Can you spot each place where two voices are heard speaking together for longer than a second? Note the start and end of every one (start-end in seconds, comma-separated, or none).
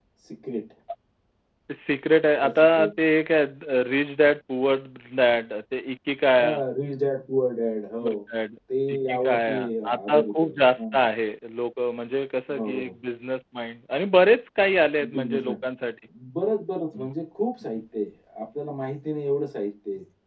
8.9-10.8